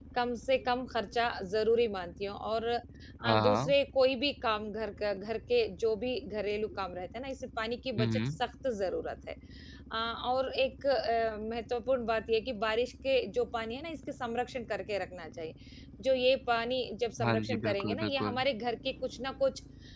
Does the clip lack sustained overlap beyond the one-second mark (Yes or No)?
No